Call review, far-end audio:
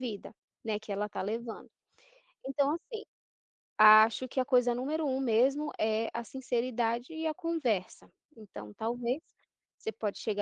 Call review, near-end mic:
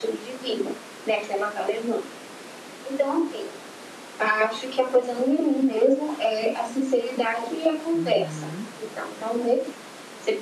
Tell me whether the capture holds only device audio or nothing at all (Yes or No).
No